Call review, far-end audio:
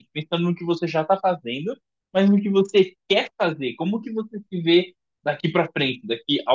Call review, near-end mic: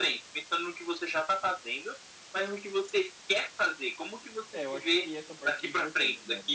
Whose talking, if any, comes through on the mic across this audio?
both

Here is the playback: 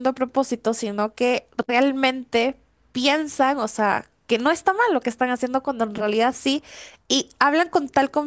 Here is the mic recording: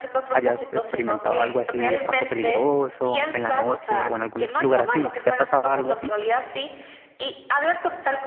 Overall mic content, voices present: both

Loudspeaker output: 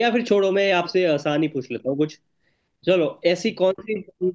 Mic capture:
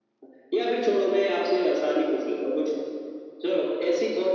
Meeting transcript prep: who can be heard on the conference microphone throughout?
echo only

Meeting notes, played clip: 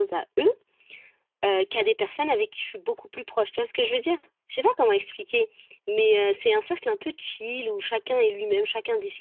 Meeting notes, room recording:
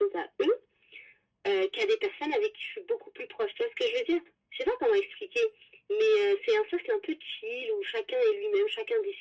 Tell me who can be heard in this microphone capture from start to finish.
echo only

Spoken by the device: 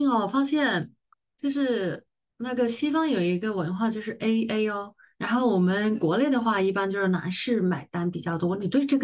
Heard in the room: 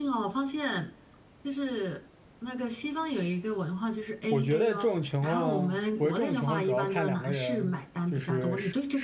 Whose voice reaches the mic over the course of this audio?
both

